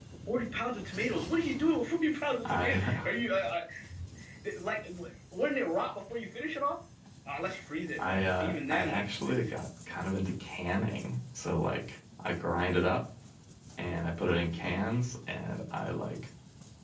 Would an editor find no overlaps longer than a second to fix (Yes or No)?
No